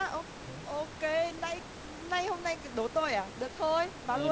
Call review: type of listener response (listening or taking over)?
taking over